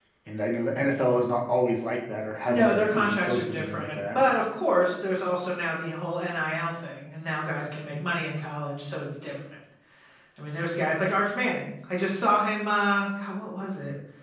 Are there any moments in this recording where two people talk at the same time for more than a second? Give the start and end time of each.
2.5-4.2

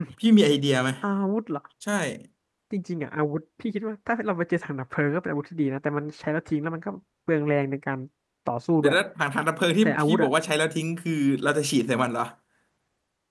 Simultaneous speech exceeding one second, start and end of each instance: none

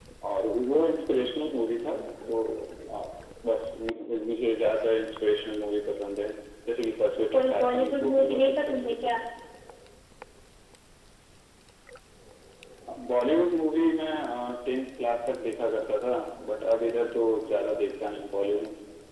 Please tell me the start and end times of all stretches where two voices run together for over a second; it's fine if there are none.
7.3-9.1

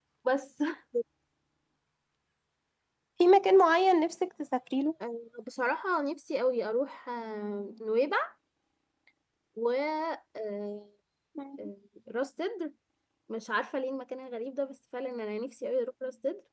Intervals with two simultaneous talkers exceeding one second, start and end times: none

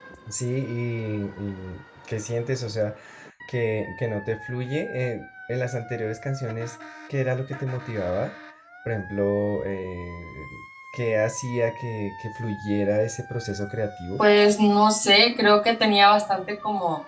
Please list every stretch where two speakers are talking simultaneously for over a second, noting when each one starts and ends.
none

